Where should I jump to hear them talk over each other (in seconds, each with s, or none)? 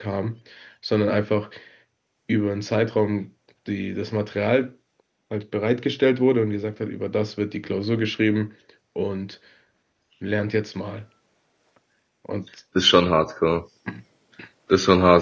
none